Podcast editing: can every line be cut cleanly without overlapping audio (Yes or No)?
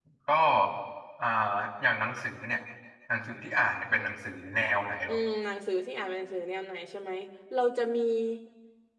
Yes